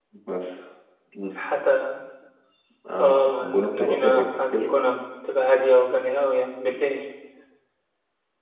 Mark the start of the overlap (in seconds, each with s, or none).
3.0 s